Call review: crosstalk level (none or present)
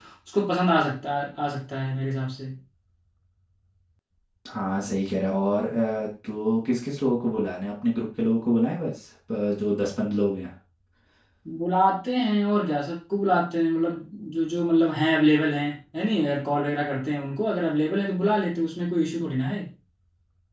none